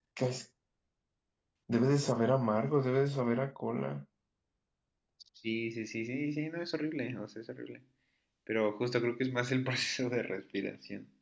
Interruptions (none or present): none